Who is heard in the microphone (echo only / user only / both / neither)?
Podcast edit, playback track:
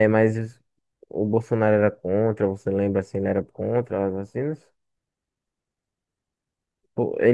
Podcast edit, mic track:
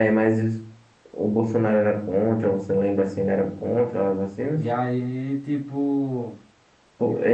both